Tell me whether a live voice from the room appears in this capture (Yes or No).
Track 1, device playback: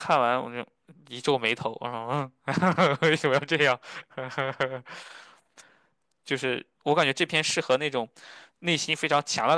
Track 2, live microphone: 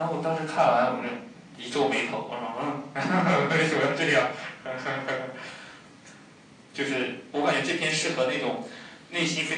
No